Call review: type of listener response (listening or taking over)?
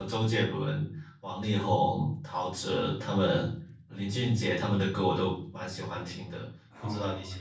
taking over